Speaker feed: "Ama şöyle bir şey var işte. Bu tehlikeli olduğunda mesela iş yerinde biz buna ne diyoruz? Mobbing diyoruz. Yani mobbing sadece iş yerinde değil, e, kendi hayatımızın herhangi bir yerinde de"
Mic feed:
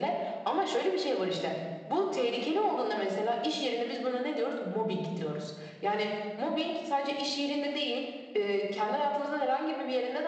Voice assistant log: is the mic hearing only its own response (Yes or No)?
Yes